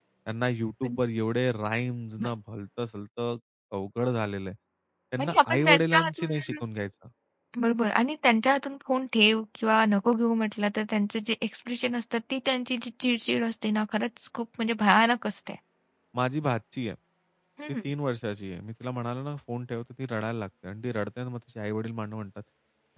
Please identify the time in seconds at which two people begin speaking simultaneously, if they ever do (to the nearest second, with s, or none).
5 s